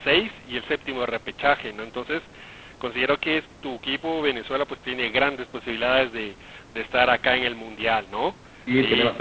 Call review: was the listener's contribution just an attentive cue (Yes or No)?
No